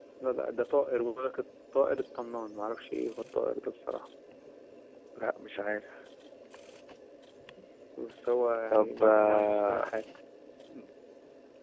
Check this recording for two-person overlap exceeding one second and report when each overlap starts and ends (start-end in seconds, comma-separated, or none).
8.7-9.9